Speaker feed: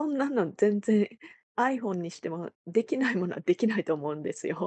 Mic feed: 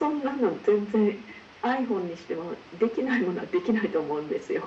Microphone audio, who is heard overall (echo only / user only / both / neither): echo only